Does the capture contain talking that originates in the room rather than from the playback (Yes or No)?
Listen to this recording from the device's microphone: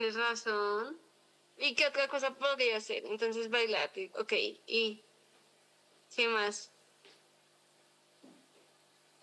No